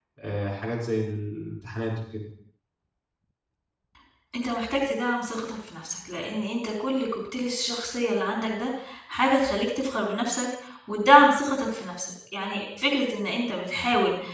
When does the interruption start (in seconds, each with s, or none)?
none